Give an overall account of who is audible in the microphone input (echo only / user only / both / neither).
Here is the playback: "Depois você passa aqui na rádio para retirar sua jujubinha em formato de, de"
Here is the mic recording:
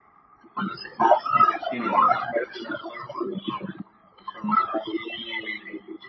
both